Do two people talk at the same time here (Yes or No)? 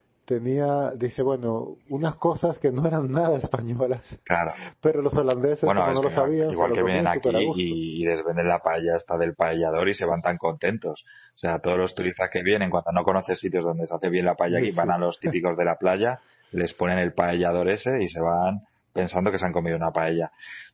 Yes